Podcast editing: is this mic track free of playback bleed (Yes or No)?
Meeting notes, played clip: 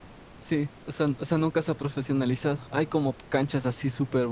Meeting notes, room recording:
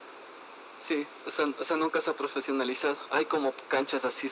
No